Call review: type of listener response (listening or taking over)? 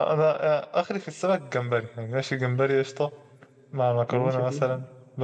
listening